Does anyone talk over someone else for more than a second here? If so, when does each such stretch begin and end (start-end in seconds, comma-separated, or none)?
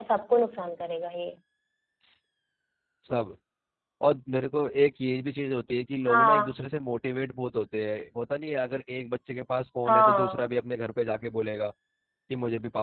none